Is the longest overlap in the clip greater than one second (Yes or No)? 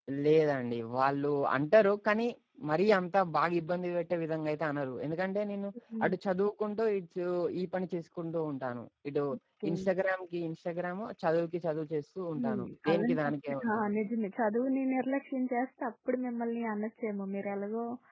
Yes